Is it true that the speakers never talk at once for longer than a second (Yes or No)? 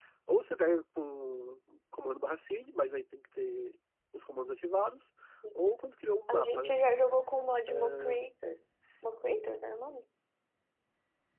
Yes